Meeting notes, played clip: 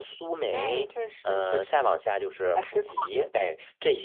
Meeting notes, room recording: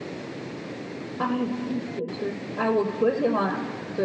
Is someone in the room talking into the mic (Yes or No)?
Yes